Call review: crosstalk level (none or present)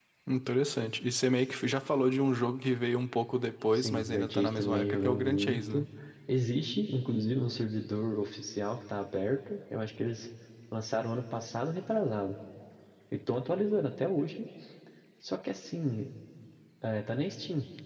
present